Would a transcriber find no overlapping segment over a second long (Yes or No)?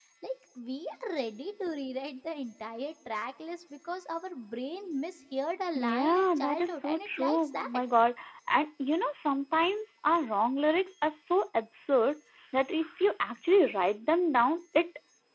No